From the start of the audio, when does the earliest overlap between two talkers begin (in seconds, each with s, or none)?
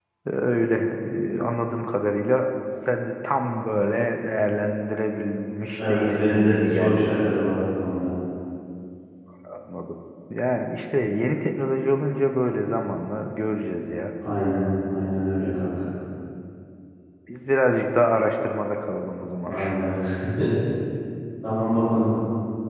5.8 s